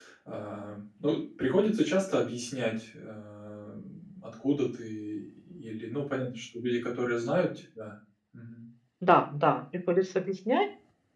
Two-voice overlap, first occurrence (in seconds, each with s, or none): none